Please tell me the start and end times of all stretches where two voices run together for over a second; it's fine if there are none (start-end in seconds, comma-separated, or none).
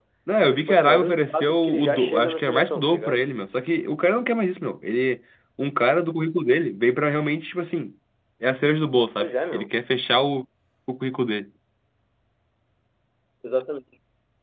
0.5-3.2